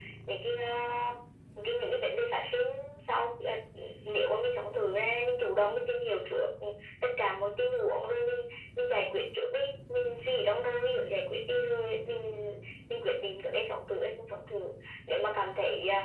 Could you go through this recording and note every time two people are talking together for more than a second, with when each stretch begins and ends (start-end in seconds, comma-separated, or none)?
none